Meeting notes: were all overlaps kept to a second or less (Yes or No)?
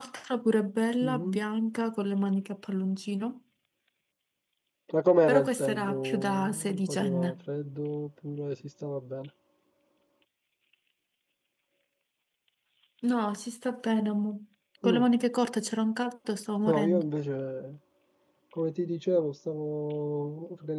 No